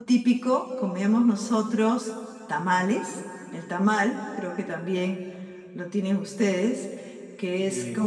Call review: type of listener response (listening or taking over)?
listening